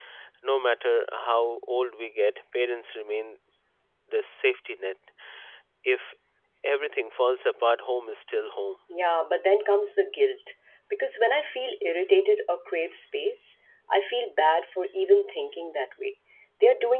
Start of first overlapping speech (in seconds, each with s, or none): none